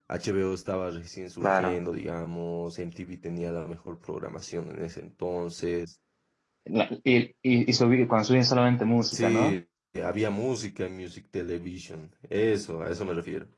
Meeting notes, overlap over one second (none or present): none